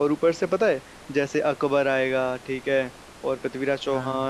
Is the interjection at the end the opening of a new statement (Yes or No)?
No